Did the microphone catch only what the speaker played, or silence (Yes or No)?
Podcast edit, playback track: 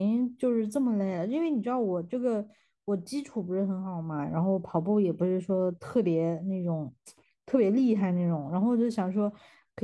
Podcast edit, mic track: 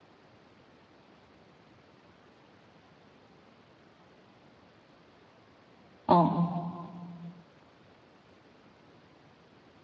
No